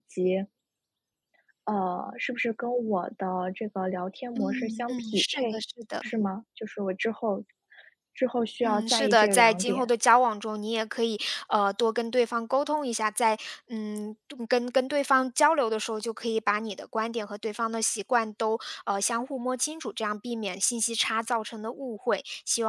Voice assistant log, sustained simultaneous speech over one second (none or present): present